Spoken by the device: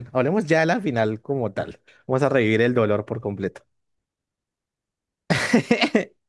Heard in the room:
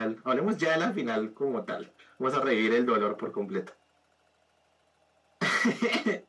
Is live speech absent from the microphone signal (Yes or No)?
Yes